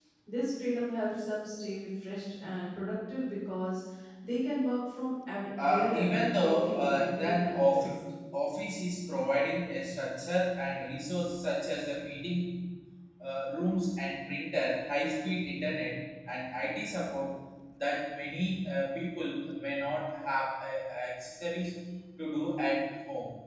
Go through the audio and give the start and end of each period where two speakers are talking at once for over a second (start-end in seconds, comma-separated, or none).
5.6-8.0